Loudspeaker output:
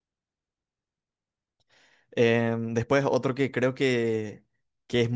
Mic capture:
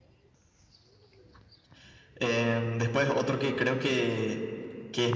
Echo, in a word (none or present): present